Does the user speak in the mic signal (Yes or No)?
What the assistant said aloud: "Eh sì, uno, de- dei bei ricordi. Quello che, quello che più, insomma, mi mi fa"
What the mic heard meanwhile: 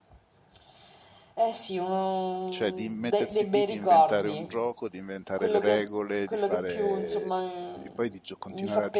Yes